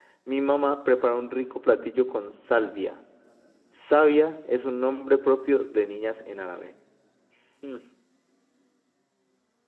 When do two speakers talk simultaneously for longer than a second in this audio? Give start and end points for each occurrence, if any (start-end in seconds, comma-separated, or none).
none